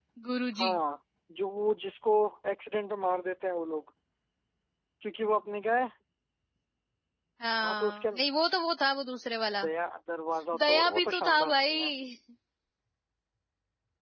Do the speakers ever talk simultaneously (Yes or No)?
Yes